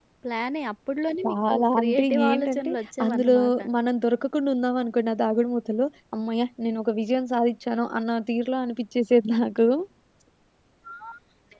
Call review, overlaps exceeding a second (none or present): present